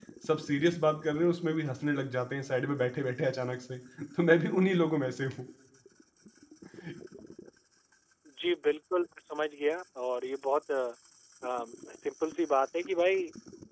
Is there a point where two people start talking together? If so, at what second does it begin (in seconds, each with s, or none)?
none